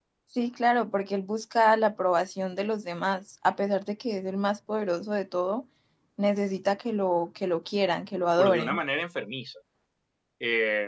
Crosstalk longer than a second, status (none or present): none